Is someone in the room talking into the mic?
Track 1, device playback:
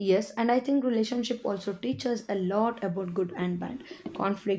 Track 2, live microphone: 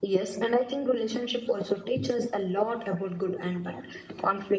No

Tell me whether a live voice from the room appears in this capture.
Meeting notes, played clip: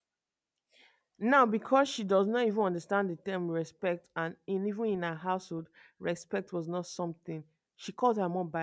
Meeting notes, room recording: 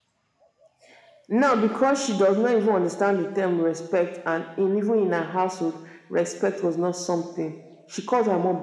No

